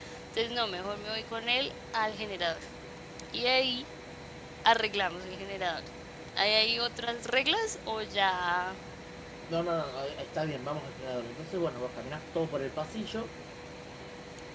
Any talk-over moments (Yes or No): No